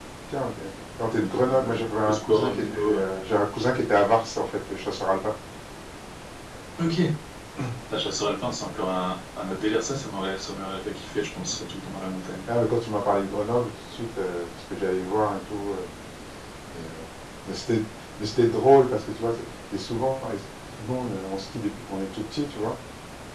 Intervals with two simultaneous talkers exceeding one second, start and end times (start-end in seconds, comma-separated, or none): 1.1-3.1